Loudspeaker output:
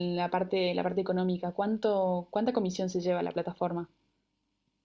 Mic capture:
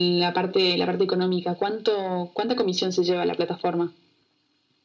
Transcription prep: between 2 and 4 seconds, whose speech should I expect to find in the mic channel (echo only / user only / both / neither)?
echo only